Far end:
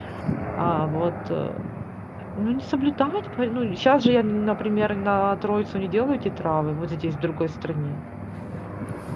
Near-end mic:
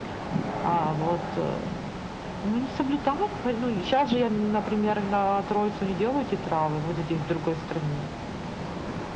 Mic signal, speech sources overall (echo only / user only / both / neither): echo only